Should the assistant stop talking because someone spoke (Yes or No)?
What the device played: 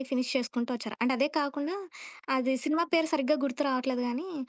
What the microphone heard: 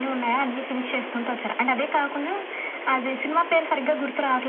No